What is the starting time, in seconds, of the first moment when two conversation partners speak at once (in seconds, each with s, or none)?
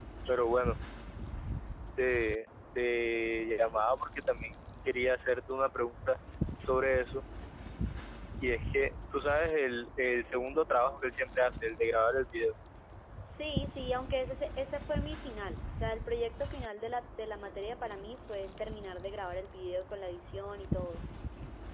none